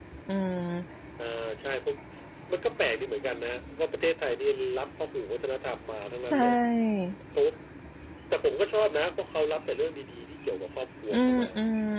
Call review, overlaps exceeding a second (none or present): none